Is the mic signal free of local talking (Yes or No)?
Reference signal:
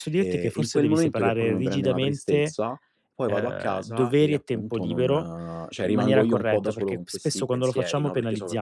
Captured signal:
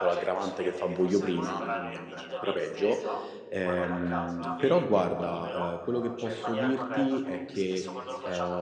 No